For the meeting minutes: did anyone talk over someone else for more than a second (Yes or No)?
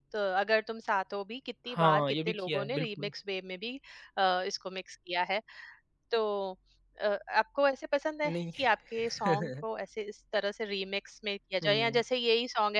Yes